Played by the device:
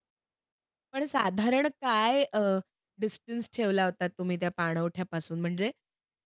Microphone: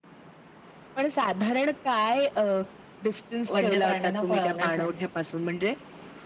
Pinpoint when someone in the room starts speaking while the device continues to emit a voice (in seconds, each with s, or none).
3.5 s